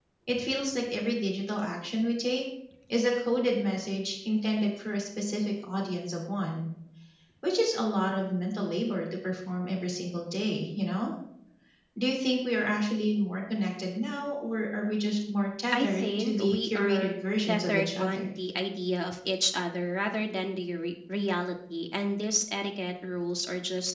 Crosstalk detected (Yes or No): Yes